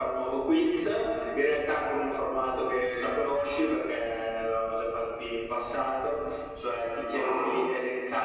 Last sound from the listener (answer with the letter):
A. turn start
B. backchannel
B